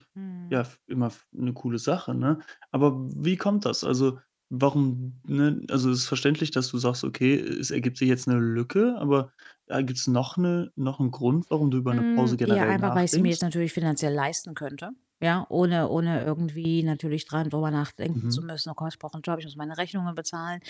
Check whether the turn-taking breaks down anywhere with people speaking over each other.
Yes, from 11.9 s

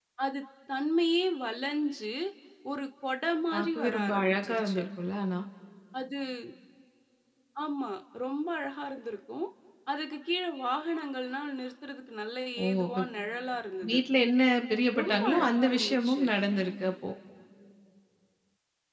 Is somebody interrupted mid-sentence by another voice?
Yes, from 3.5 s

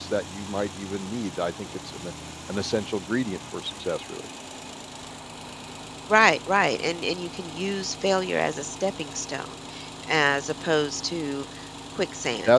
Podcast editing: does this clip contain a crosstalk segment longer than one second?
No

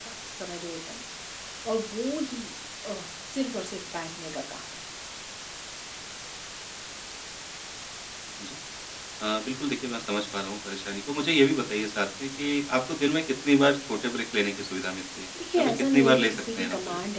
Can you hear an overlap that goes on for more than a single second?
Yes, from 15.3 s

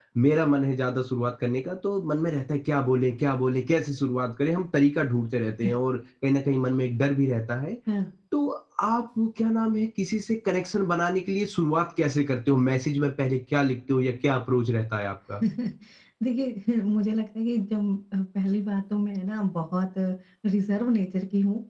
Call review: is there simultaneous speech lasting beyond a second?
No

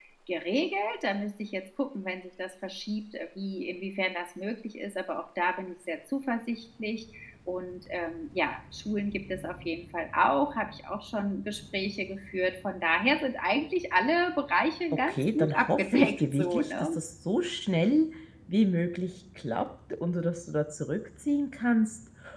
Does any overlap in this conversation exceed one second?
Yes, from 15.1 s

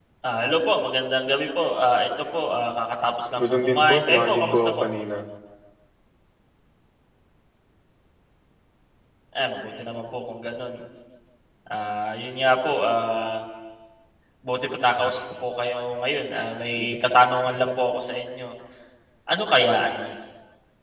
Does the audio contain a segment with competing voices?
Yes, from 3.4 s

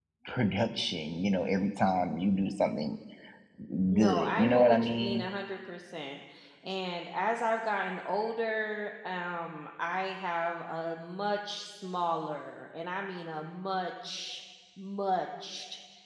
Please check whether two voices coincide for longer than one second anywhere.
Yes, from 3.9 s

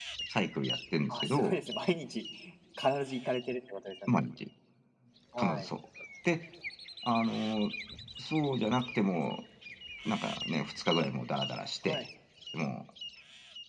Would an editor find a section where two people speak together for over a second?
No

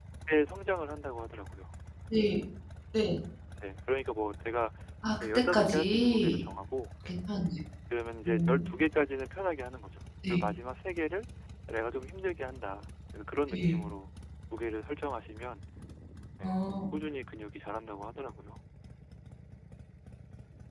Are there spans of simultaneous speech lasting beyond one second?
Yes, from 5.2 s

